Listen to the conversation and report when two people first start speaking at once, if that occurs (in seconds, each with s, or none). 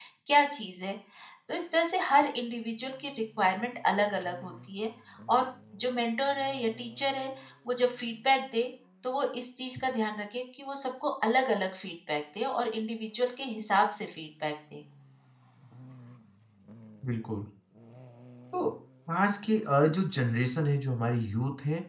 none